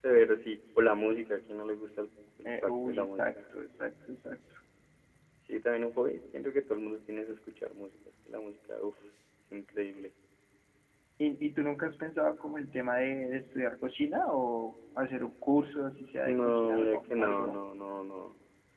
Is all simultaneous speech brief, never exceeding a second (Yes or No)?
No